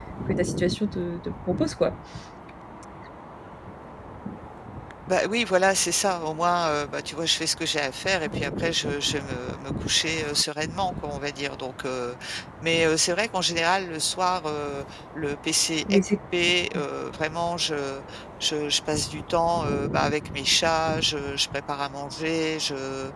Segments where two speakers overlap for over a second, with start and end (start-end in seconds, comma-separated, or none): none